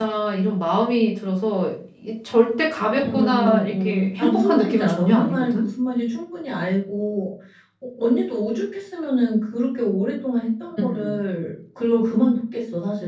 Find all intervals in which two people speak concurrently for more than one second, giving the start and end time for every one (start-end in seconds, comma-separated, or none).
3.0-5.7